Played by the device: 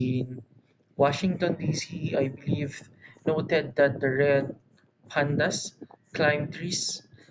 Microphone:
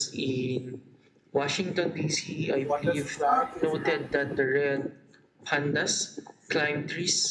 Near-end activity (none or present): present